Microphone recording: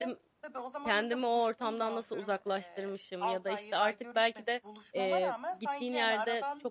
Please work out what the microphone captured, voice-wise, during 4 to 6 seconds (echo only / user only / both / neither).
both